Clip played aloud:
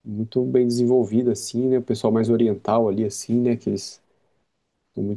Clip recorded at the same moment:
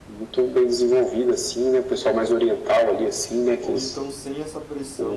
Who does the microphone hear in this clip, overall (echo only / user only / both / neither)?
both